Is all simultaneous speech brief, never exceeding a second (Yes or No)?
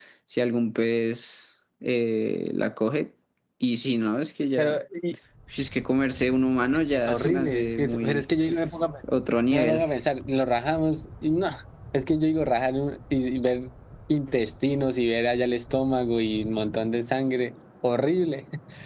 No